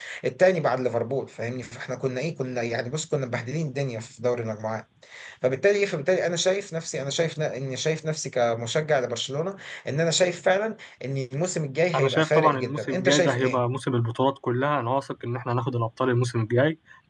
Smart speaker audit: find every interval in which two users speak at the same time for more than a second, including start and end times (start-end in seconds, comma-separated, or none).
12.0-13.6